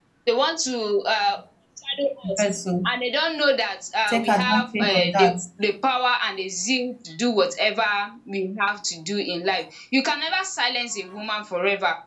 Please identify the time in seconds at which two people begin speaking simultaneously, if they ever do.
4.1 s

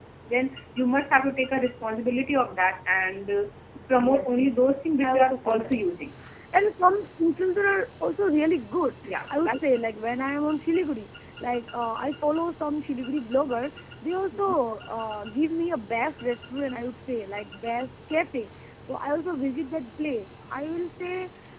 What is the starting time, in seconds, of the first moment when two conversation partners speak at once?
4.0 s

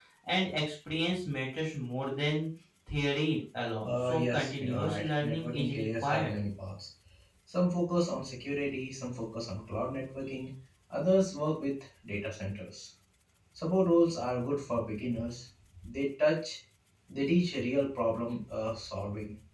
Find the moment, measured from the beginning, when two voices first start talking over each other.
3.8 s

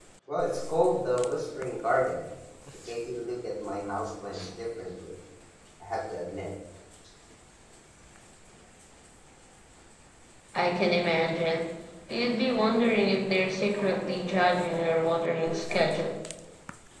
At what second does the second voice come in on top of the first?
none

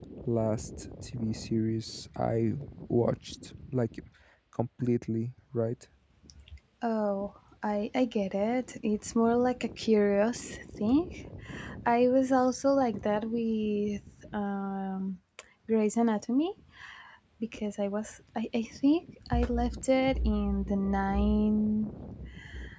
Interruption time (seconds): none

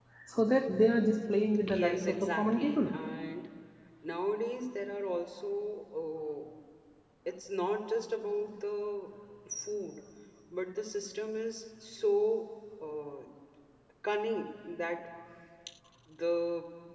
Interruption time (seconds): 1.7 s

